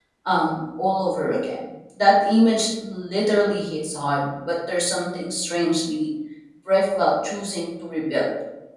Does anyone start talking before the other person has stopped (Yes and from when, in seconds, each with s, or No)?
No